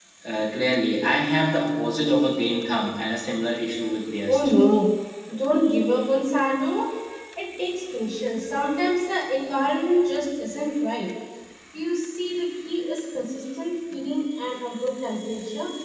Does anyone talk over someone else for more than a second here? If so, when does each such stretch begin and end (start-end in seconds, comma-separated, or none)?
none